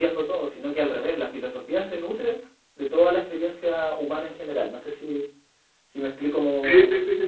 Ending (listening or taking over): taking over